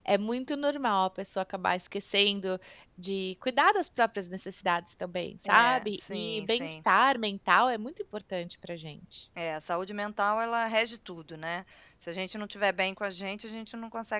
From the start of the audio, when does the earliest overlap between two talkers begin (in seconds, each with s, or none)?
5.5 s